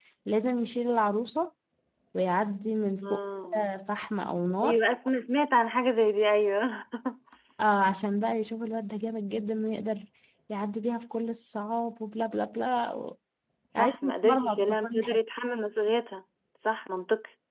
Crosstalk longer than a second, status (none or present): present